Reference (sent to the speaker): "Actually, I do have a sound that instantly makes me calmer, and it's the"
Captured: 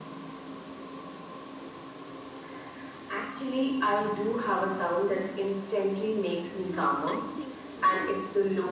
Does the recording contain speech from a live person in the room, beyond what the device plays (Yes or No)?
Yes